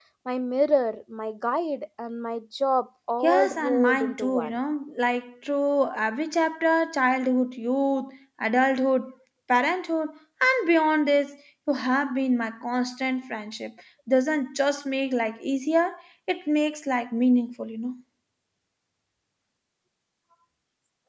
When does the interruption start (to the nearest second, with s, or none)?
3 s